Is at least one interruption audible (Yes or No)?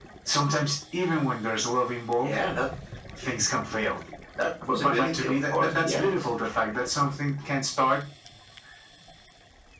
Yes